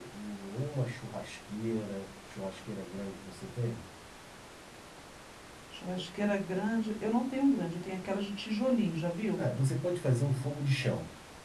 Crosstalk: none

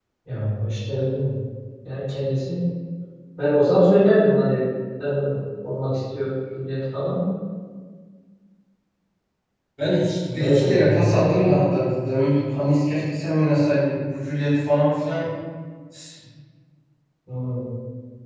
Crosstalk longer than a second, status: present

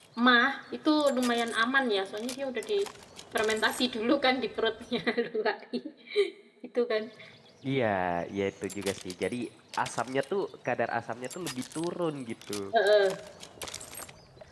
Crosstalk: none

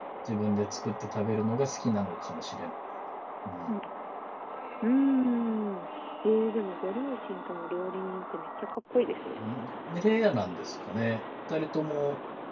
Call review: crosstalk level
none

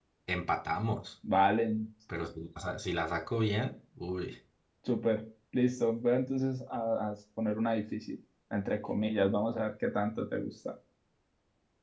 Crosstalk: none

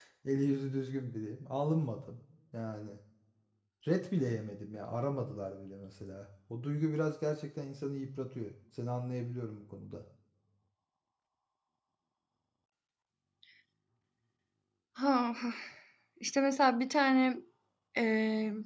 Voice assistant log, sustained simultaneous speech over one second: none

